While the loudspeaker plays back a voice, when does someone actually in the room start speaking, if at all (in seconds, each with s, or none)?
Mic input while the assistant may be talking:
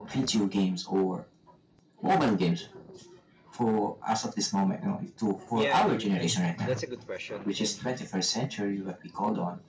5.5 s